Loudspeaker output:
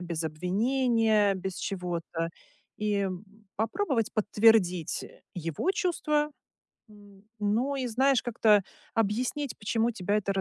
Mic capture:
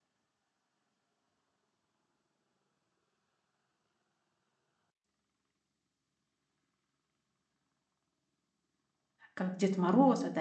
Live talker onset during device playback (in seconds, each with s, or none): 9.3 s